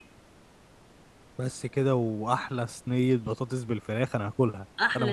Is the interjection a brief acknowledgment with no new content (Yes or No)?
No